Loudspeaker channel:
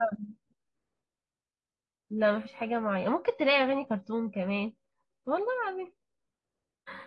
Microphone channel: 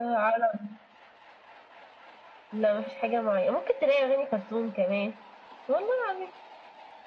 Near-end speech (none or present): none